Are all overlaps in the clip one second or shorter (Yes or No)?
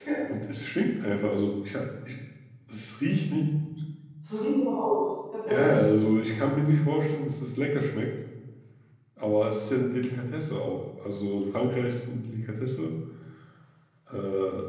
Yes